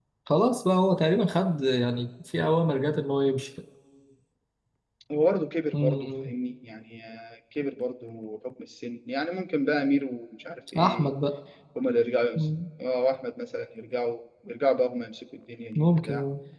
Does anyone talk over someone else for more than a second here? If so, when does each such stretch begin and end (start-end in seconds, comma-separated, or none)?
none